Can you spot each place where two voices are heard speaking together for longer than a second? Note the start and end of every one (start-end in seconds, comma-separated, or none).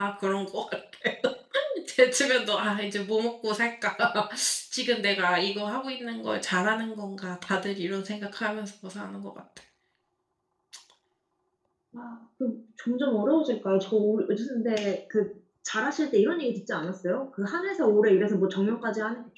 none